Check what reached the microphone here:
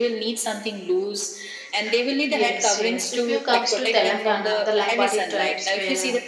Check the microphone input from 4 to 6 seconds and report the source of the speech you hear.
both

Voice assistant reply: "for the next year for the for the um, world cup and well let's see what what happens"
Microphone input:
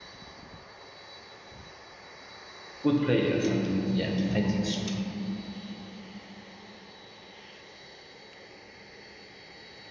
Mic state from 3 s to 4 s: user only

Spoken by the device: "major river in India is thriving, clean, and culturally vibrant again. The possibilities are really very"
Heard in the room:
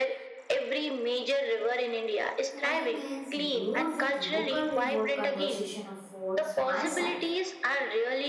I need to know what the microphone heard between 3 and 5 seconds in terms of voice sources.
both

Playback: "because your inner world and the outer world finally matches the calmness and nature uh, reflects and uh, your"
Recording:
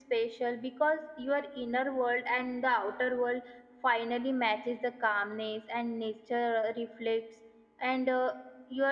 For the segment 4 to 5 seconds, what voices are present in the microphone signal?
echo only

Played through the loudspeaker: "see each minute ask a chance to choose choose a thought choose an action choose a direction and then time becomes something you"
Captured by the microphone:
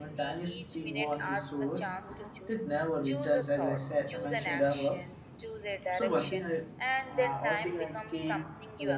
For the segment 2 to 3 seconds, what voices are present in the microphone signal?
both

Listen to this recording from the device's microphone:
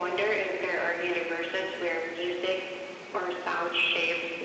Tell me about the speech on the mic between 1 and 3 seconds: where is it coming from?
echo only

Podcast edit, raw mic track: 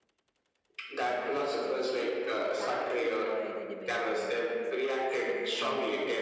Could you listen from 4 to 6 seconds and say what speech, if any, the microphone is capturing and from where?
both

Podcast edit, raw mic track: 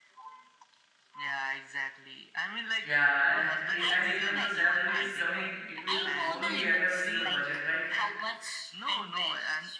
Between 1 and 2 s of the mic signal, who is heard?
echo only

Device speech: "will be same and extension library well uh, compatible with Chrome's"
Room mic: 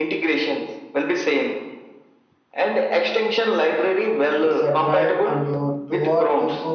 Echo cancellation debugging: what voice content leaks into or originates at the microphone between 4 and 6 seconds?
both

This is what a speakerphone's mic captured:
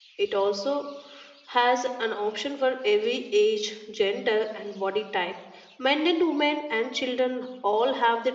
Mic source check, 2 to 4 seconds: user only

